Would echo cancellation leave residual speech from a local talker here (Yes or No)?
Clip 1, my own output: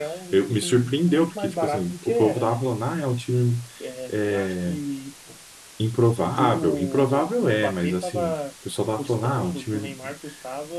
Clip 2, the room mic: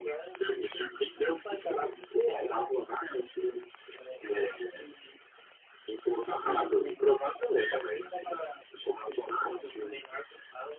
No